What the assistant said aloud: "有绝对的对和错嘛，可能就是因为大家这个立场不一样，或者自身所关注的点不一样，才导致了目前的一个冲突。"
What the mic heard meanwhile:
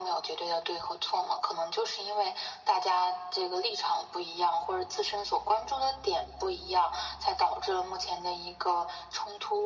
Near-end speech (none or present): none